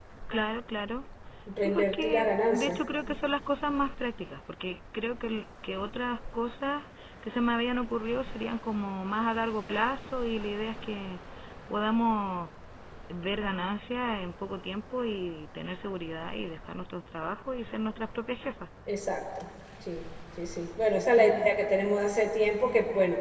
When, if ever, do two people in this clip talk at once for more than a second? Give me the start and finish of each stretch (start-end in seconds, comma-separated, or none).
1.5-2.8